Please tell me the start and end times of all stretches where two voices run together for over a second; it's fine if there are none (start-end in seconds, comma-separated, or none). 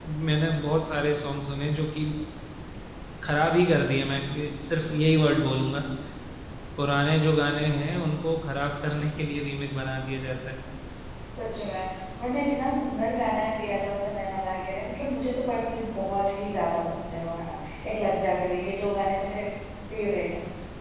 none